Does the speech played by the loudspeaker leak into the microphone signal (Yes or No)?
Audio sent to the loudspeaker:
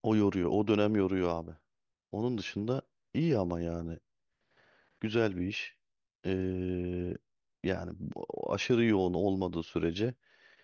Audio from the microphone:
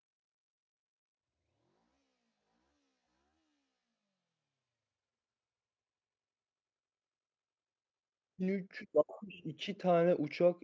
No